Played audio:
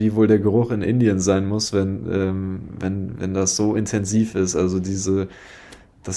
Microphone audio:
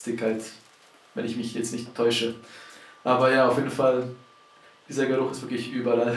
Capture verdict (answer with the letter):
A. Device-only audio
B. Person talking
B